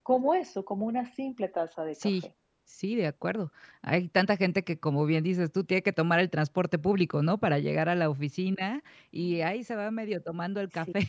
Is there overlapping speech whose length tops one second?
No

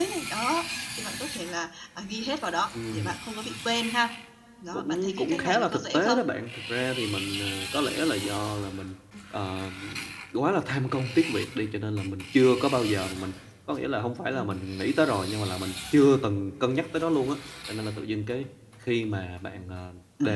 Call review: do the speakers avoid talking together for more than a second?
No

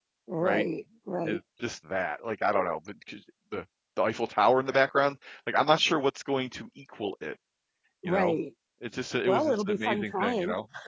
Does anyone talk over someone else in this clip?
Yes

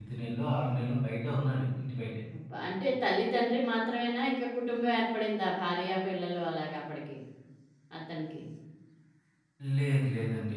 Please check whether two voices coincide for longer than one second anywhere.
No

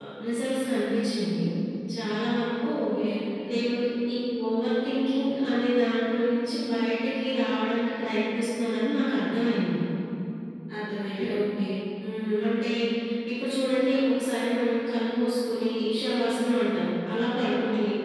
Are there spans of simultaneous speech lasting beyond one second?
No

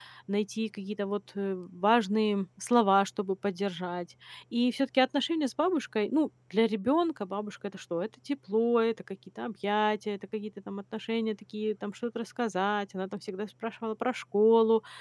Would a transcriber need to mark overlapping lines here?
No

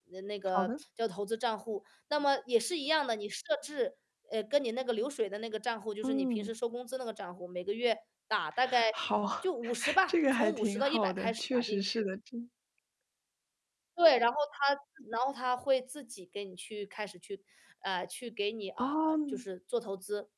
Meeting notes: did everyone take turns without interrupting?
No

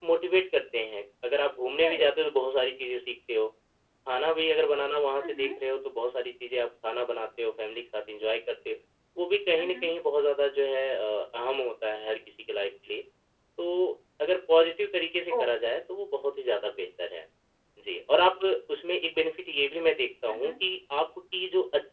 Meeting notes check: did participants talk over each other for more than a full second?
No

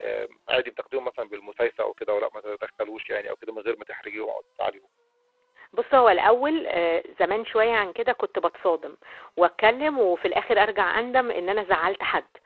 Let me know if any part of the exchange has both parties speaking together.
No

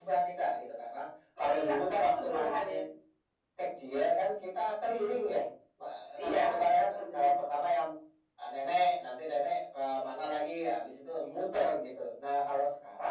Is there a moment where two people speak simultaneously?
Yes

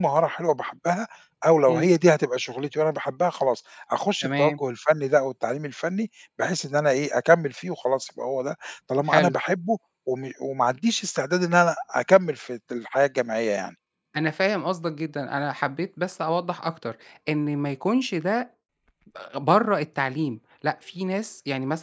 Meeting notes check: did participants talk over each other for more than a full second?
No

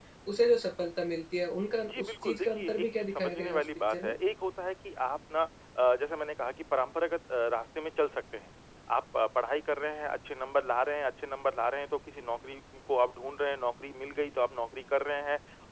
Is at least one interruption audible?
Yes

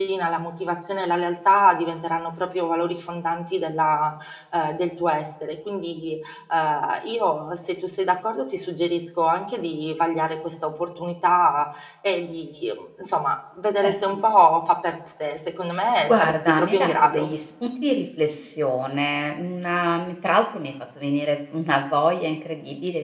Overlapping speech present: Yes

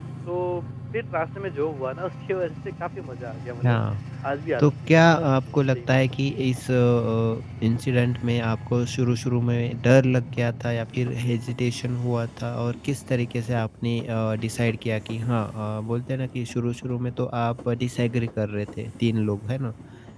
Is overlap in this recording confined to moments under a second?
No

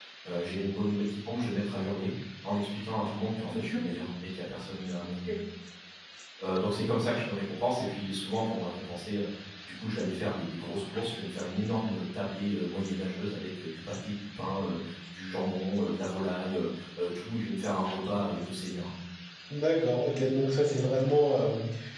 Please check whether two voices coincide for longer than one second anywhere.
No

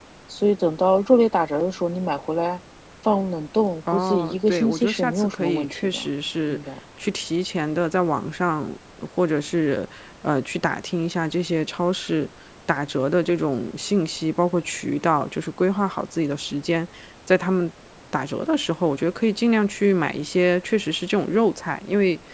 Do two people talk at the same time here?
Yes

